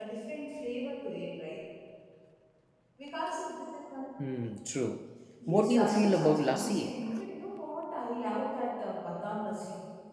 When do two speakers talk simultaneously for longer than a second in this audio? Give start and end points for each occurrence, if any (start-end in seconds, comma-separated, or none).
5.5-7.0